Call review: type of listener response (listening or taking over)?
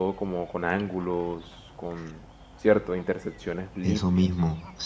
taking over